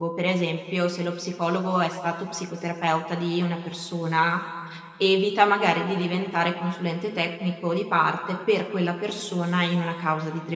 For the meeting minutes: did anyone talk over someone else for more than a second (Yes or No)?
No